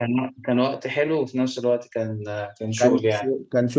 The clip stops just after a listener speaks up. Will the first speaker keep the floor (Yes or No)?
No